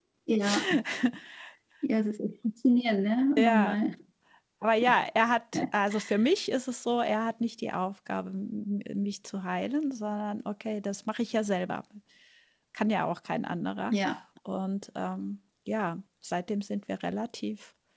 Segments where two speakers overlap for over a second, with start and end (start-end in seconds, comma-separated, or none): none